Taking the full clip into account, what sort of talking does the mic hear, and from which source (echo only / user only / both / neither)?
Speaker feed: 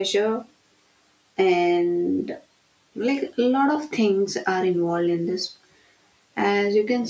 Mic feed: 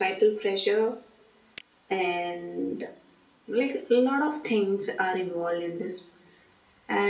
echo only